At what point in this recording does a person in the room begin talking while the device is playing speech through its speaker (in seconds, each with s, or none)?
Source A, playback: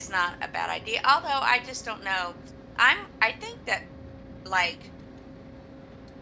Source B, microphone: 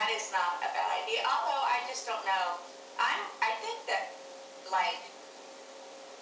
none